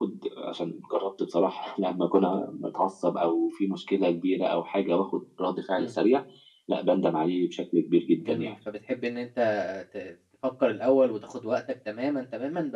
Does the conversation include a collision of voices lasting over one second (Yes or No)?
No